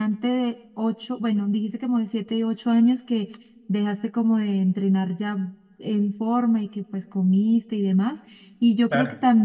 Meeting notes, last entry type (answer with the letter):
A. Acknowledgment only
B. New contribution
A